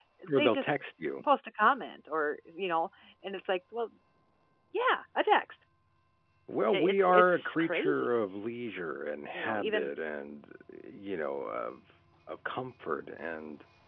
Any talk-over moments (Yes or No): Yes